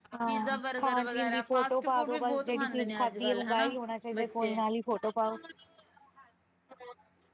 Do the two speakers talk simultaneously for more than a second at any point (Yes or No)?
Yes